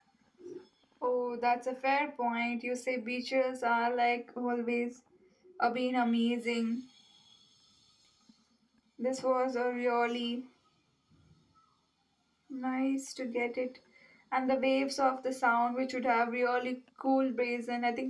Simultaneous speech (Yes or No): No